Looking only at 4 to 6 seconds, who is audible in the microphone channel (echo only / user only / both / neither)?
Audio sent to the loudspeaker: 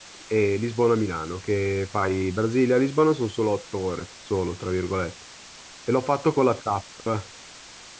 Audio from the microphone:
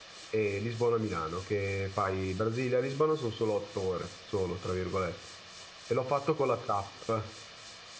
echo only